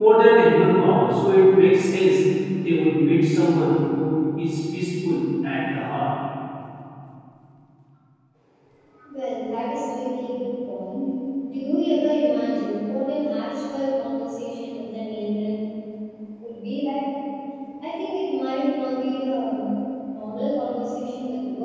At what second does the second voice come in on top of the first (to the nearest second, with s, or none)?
none